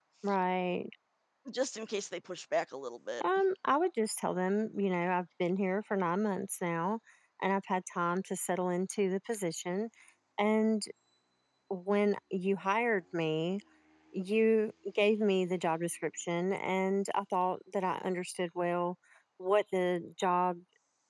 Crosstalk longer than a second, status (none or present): none